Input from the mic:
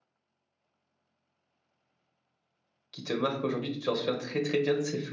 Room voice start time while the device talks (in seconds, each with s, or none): 2.9 s